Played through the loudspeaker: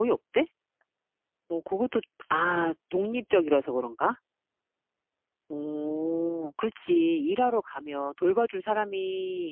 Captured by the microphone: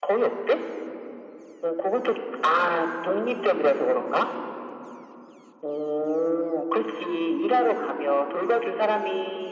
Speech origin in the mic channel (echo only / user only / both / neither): echo only